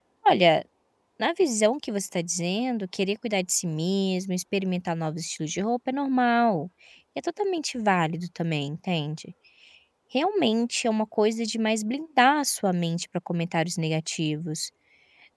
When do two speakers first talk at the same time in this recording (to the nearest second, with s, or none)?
none